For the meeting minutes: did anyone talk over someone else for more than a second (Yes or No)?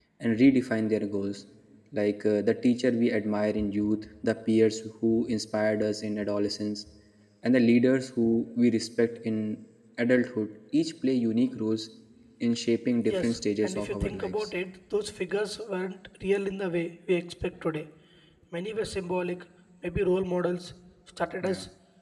Yes